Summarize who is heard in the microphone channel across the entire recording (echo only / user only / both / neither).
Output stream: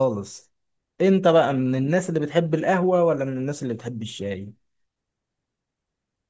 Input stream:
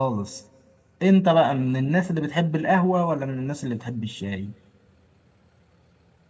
echo only